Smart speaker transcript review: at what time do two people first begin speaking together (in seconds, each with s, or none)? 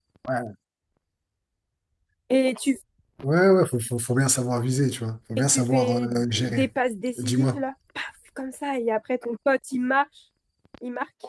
5.4 s